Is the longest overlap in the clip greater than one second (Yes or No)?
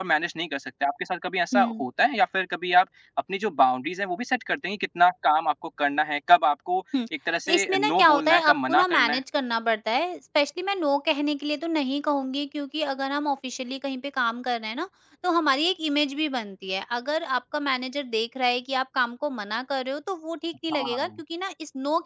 Yes